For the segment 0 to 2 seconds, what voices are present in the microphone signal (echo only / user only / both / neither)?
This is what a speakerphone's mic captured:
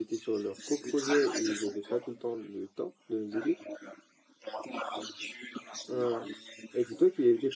both